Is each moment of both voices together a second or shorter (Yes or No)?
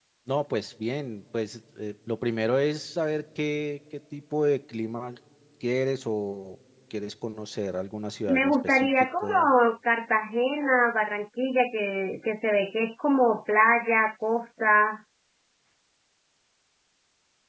No